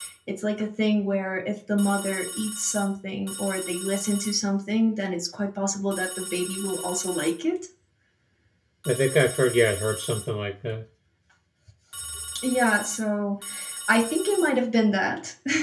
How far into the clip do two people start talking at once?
none

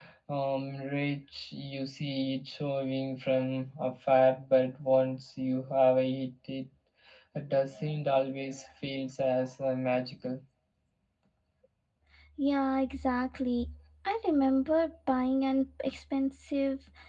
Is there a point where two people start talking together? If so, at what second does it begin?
none

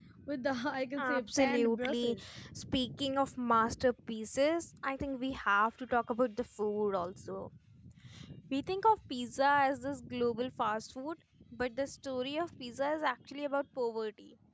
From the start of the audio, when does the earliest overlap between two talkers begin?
1.0 s

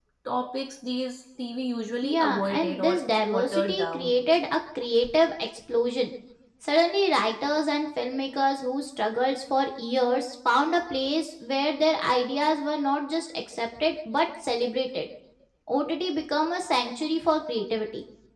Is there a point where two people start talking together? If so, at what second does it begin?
2.0 s

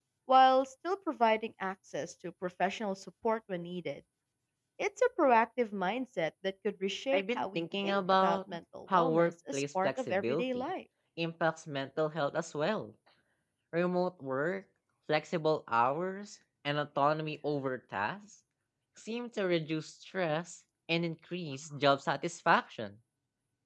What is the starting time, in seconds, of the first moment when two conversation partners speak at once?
7.1 s

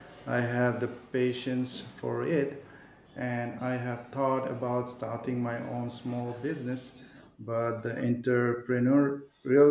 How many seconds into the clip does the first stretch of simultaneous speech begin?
none

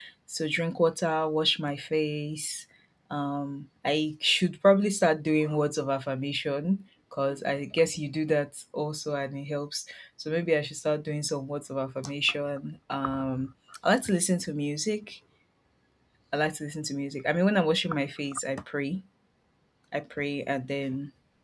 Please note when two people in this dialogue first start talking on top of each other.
none

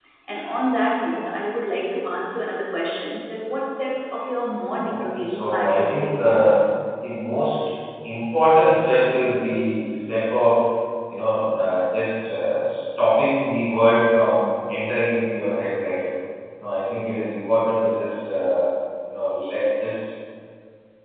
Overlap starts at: 4.9 s

